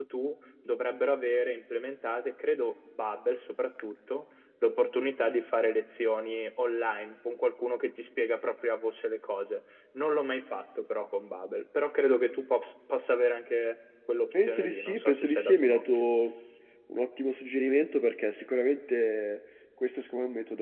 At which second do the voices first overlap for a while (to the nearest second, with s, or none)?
14 s